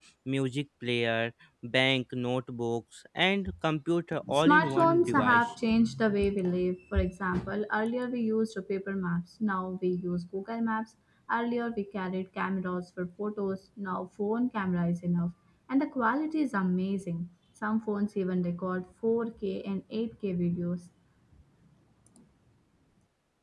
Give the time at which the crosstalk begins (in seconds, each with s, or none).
4.2 s